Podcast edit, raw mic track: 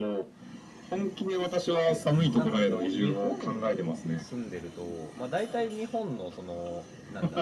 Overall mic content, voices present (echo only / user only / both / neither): both